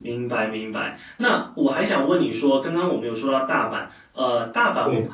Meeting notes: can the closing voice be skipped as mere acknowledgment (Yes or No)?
Yes